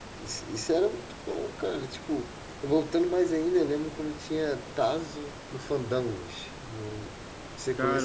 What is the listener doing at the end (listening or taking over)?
taking over